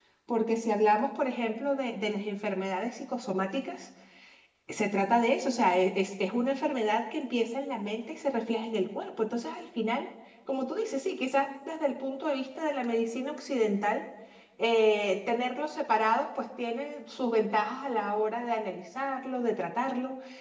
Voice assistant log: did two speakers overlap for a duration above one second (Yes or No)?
No